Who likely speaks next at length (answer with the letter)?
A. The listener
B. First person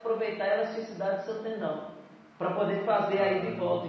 B